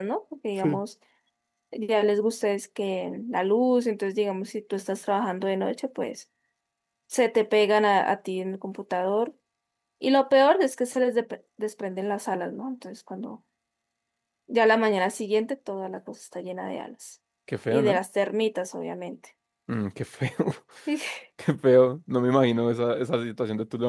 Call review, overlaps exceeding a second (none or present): none